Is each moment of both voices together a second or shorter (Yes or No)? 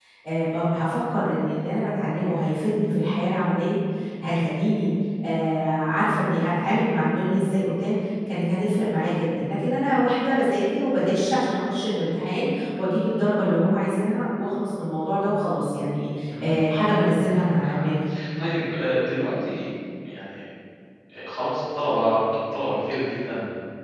No